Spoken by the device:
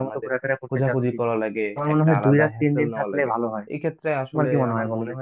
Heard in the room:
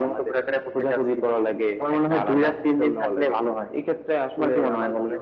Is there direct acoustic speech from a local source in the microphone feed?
No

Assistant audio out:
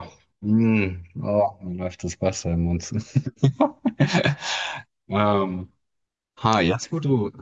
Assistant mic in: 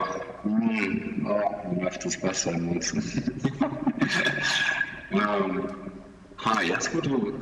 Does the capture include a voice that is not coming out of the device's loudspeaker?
No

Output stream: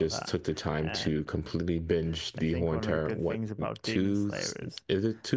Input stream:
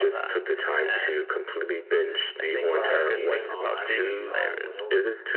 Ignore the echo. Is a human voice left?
Yes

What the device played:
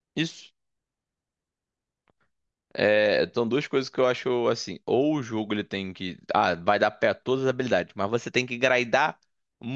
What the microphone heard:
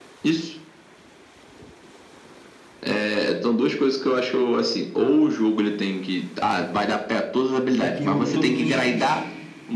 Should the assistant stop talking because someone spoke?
Yes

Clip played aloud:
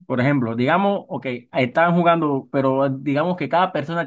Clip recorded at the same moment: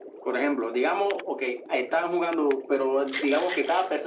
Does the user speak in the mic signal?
No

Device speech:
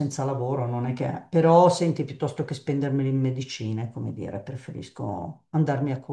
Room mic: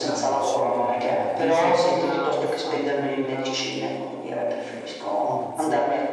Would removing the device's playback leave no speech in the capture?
No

